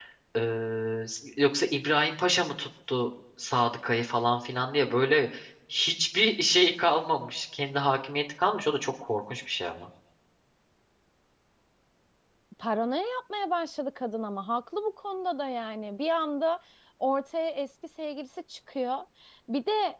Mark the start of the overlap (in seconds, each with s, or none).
none